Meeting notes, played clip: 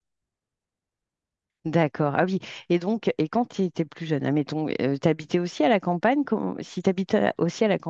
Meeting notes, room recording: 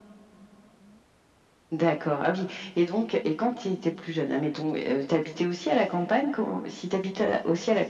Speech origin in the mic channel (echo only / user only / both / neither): echo only